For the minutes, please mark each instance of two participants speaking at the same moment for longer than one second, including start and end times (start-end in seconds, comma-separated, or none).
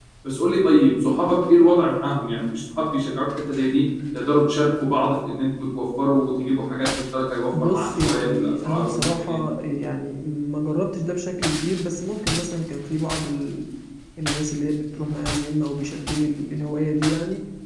7.6-9.5